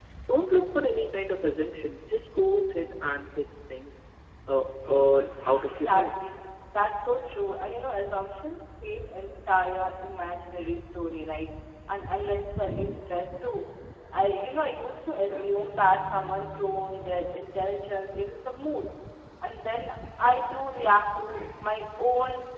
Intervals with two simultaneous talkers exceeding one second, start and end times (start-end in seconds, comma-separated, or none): 4.9-6.2